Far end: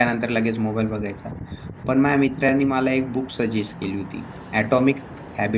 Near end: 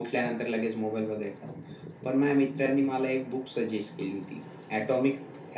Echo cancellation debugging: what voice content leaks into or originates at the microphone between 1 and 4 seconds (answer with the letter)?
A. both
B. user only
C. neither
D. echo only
D